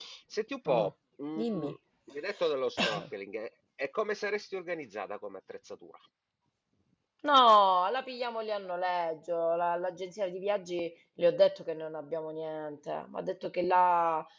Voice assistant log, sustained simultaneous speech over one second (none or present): none